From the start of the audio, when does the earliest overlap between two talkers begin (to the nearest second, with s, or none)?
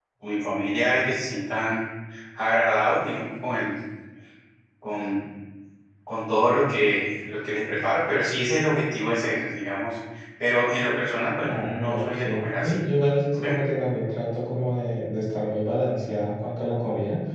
11 s